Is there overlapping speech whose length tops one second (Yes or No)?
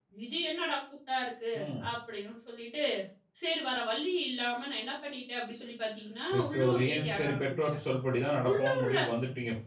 Yes